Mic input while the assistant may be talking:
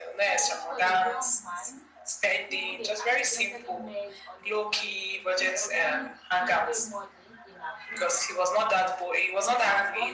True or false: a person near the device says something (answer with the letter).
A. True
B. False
A